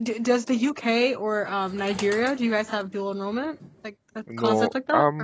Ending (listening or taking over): taking over